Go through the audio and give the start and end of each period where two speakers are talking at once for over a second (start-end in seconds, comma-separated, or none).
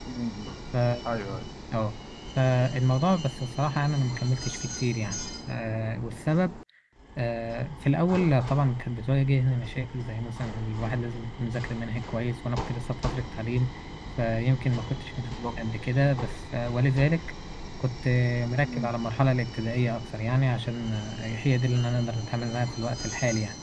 none